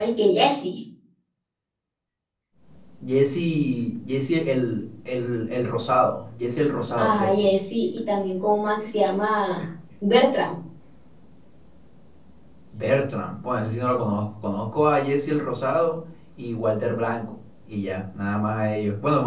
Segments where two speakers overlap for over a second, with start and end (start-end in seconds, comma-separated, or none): none